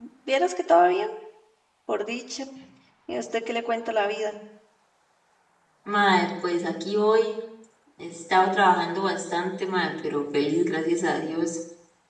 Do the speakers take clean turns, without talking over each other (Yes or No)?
Yes